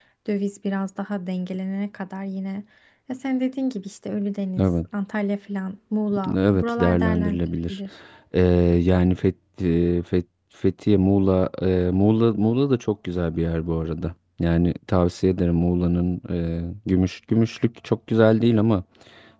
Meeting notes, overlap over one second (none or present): present